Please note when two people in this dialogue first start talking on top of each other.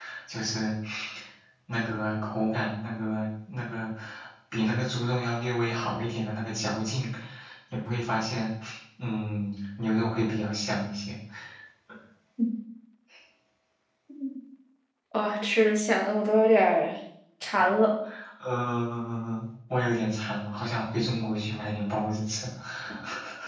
none

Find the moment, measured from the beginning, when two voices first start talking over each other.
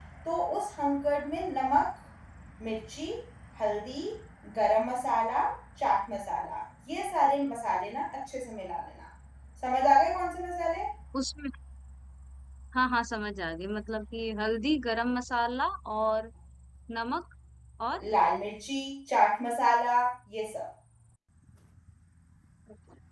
none

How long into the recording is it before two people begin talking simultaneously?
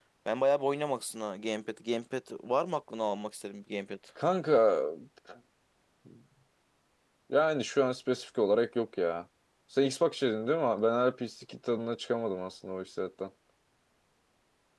none

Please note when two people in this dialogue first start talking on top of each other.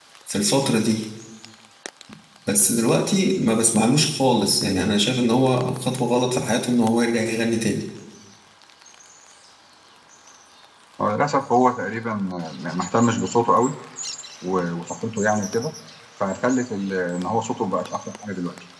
none

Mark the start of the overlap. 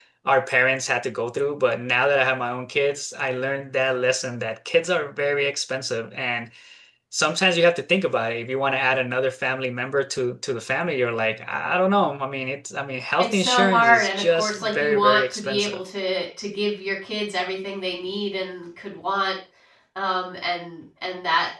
13.2 s

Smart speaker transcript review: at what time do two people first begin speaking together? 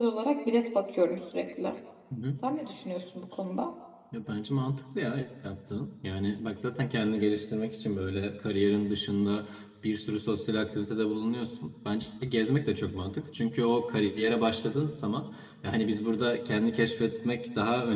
none

